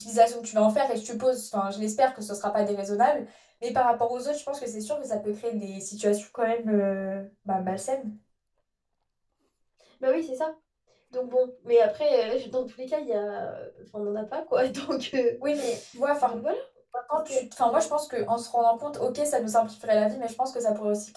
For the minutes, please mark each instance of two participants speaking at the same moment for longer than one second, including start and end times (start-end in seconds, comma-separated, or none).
none